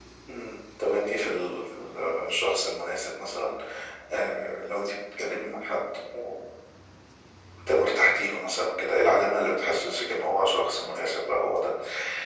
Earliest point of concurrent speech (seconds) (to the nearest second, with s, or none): none